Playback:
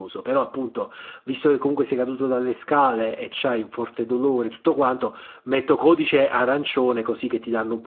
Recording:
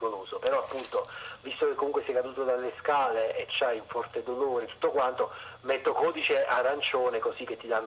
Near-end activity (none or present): none